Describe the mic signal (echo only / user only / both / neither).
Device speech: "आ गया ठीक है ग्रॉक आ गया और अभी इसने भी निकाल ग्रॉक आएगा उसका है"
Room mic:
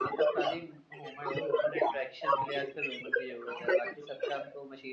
both